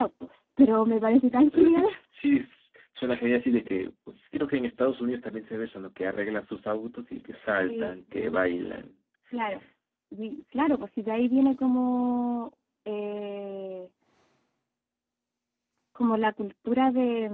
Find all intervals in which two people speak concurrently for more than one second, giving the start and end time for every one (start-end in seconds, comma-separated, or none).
none